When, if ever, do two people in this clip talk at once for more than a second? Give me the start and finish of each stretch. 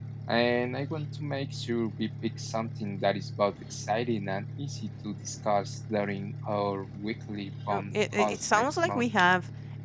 7.7-9.0

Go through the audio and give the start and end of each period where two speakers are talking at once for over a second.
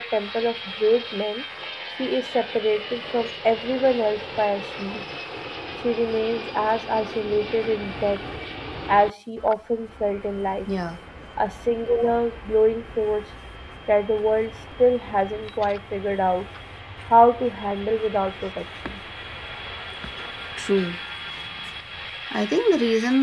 none

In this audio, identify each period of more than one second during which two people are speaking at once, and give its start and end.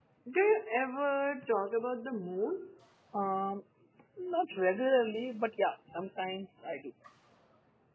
none

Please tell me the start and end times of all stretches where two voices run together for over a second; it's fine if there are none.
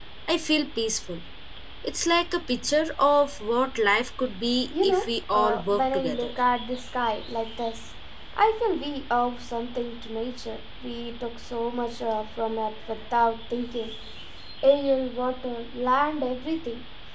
4.8-6.3

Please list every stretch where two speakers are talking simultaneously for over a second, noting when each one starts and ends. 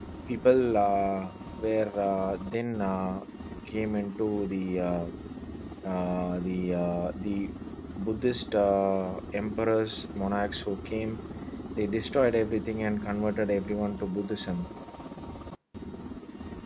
none

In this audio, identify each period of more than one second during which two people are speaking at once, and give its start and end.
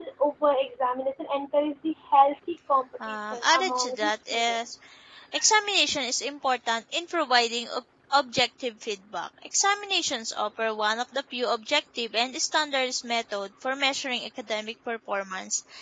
3.1-4.6

